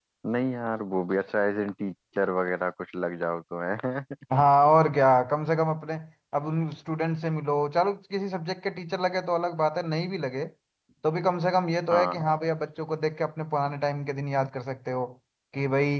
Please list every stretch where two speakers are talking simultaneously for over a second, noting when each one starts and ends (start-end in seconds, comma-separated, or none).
none